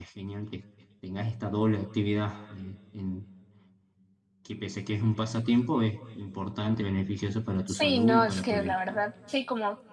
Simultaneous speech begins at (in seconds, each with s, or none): 7.7 s